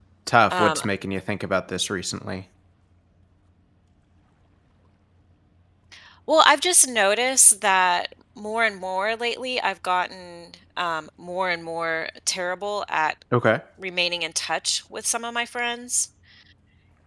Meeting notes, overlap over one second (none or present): none